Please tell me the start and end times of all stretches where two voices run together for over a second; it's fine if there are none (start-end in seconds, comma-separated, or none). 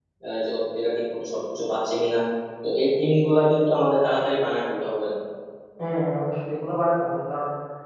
none